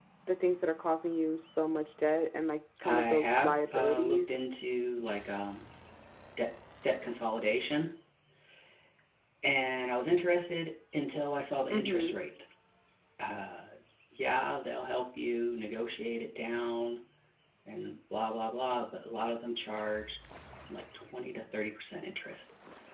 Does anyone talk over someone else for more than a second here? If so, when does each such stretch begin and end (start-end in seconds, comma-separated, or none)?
2.8-4.3